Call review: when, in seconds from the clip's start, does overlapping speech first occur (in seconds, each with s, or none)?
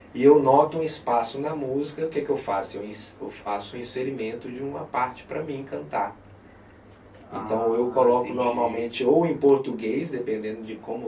7.4 s